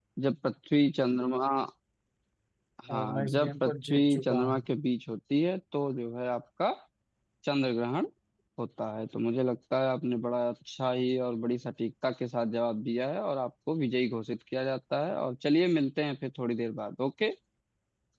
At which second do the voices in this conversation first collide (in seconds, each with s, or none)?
2.9 s